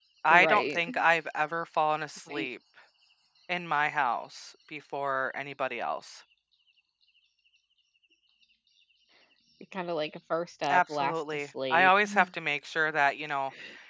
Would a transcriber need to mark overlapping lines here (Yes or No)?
Yes